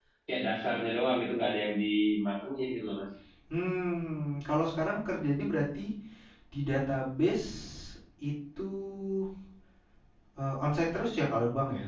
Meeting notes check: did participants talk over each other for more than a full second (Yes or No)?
No